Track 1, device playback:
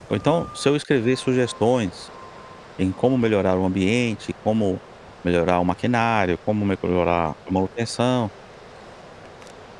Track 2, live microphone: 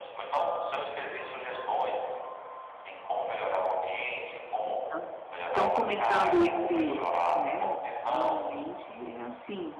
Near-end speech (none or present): present